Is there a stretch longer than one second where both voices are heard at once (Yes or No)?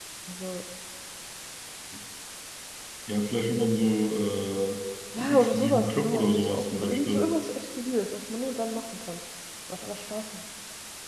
Yes